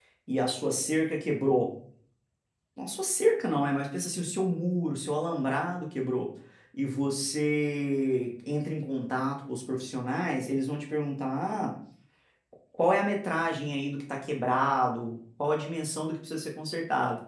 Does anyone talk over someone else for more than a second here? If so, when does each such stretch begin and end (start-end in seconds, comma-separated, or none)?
none